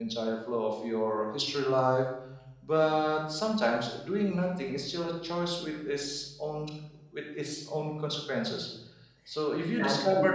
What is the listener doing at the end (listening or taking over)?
taking over